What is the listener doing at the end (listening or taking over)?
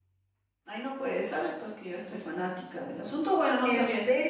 listening